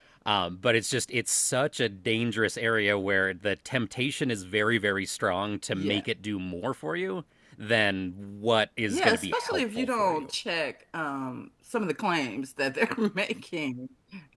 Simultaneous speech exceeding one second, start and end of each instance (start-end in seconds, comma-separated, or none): 8.9-10.3